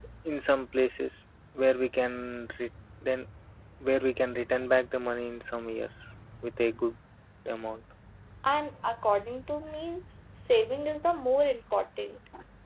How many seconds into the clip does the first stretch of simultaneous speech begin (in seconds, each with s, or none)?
none